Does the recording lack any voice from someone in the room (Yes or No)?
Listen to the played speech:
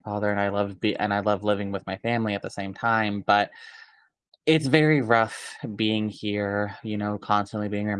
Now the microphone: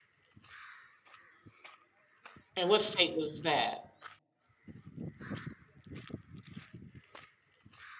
No